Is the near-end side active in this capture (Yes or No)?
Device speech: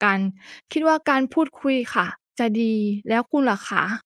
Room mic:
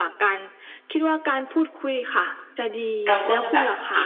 Yes